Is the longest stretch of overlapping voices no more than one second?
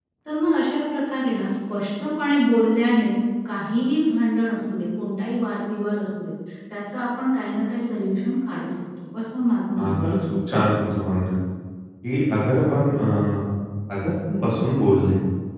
Yes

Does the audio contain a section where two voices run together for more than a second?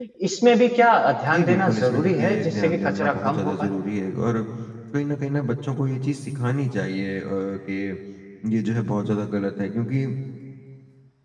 Yes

